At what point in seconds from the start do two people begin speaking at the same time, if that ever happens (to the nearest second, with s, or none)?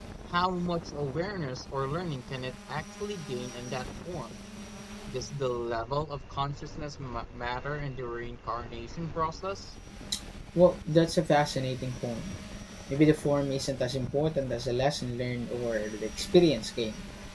none